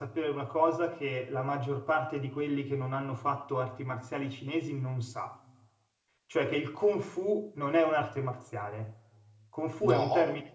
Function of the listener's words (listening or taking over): listening